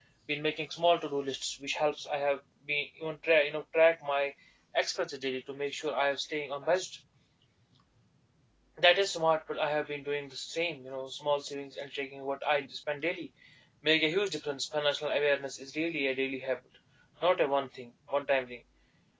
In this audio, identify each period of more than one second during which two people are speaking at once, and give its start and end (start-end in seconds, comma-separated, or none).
none